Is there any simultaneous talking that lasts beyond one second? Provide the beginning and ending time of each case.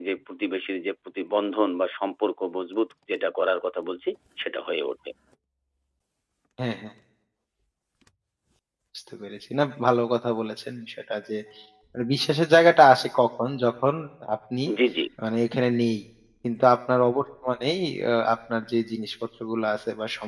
none

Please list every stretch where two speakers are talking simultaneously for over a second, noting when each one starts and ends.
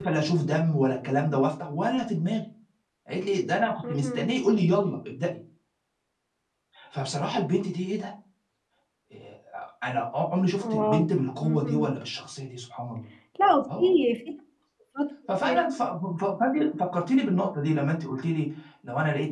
none

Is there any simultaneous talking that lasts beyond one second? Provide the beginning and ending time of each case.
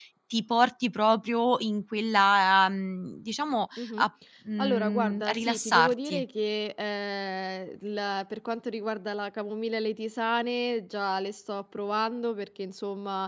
4.6-6.2

